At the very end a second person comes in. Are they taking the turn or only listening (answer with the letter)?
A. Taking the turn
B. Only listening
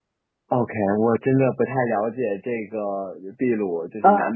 B